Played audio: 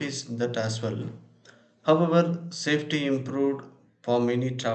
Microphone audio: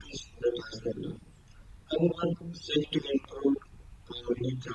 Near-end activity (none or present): none